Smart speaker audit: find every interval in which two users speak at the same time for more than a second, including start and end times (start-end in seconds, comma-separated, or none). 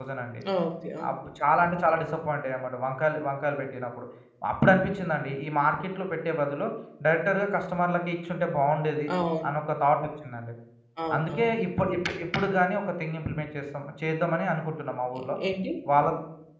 none